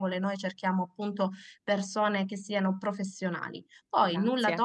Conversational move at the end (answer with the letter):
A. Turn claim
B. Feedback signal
B